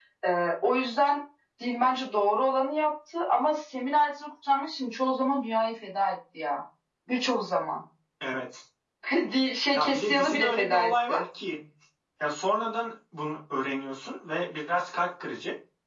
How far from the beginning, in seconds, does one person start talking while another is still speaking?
9.7 s

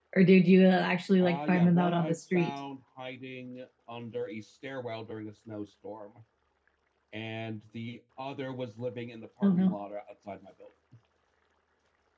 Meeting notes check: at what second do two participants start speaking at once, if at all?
1.2 s

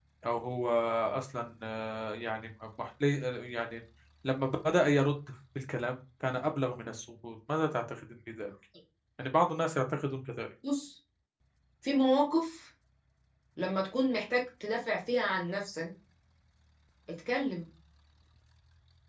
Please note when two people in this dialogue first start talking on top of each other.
none

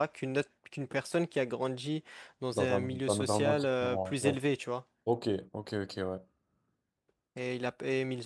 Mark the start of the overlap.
2.5 s

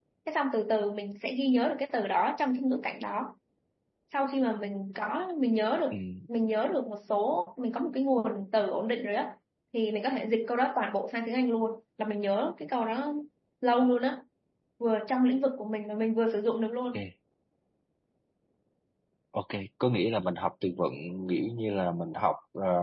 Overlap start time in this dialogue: none

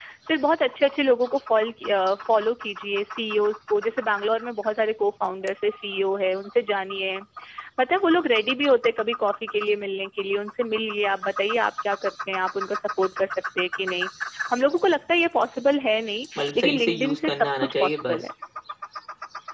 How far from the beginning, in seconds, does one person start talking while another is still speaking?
16.4 s

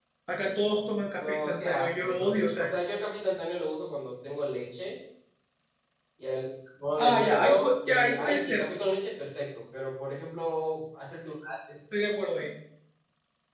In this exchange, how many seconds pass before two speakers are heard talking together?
1.2 s

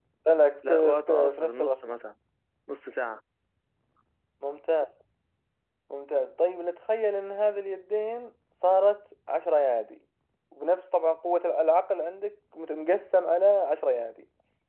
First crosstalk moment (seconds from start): 0.7 s

